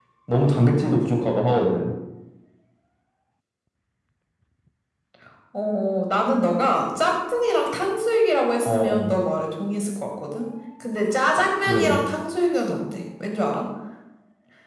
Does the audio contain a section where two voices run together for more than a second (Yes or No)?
No